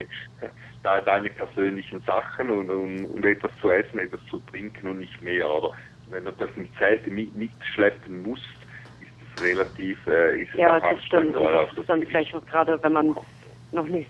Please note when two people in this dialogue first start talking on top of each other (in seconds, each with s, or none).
10.6 s